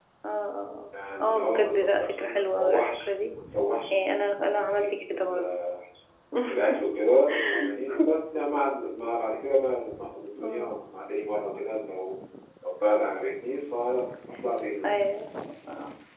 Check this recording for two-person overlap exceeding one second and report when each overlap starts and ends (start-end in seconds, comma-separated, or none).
1.2-3.0